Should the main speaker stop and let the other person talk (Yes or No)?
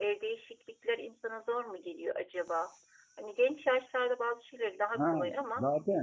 Yes